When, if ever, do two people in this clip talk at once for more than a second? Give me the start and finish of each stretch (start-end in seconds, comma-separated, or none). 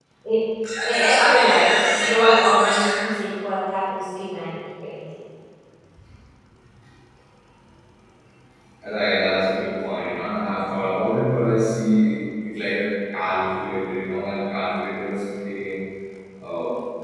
0.9-3.1